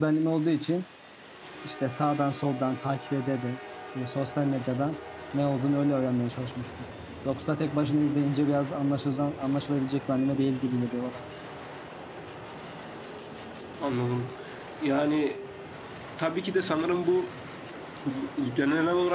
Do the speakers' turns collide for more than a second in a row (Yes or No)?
No